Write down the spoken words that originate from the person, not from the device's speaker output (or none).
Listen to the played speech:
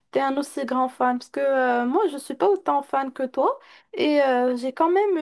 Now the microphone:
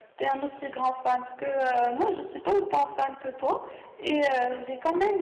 none